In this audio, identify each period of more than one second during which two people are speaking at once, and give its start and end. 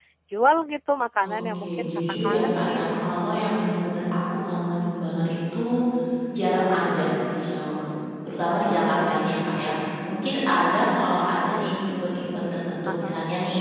1.2-3.2

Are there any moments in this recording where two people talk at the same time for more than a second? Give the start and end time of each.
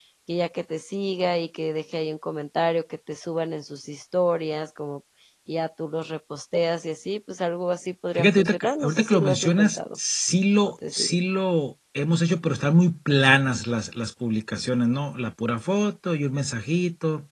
8.2-9.8

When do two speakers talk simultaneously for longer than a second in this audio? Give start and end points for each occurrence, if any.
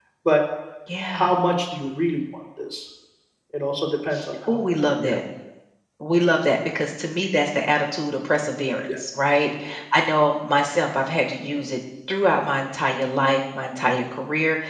none

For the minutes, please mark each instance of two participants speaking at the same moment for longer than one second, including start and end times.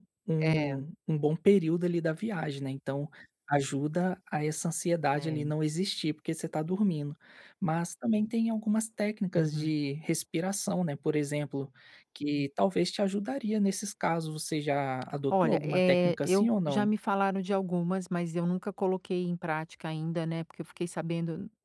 15.3-16.9

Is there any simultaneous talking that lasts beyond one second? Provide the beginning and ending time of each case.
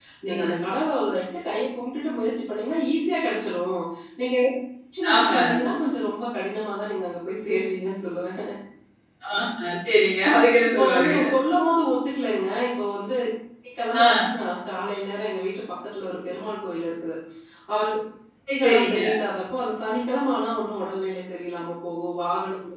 none

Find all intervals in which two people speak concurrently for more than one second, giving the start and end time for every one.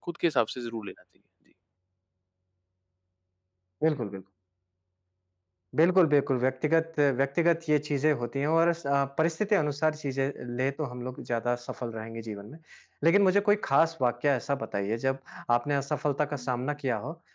none

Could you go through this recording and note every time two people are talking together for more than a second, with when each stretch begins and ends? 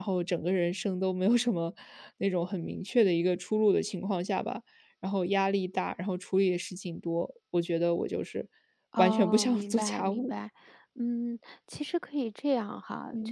9.0-10.3

